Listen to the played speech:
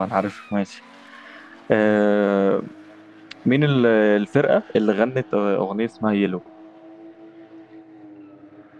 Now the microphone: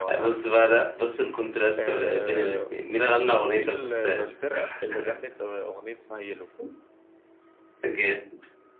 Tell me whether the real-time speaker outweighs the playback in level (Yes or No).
Yes